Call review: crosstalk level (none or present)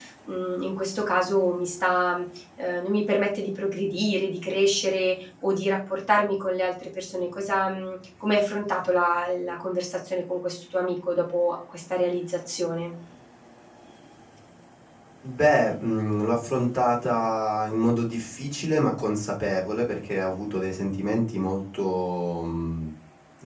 none